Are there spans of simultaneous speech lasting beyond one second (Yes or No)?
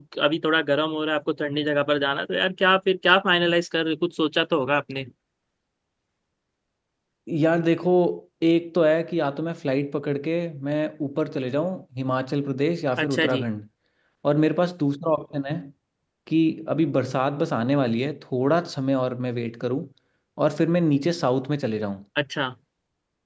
No